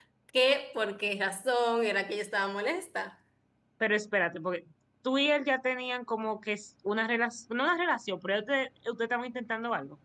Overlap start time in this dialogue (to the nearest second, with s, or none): none